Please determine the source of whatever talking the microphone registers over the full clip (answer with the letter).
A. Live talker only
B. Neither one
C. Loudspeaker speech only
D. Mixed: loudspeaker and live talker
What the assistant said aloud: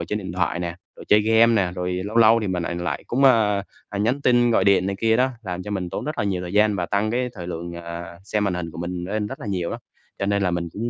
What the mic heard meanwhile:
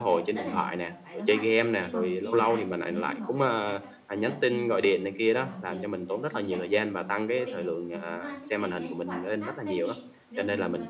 D